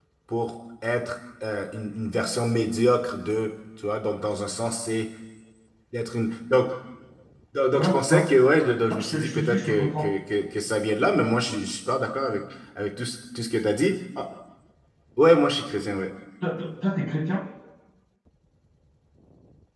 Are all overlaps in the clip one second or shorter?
No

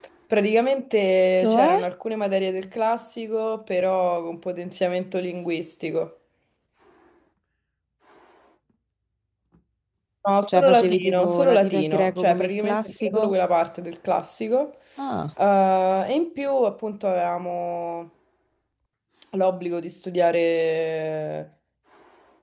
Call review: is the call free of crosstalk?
No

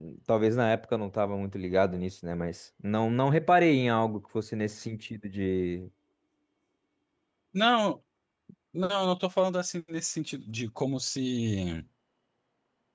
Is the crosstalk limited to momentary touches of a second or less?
Yes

